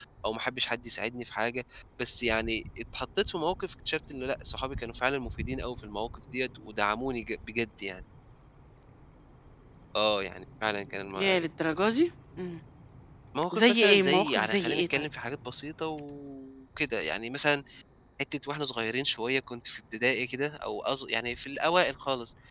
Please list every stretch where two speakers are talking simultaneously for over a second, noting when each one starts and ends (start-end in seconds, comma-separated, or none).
13.5-15.1